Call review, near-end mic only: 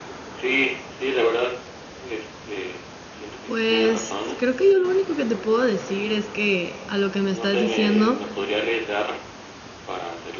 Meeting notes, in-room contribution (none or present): present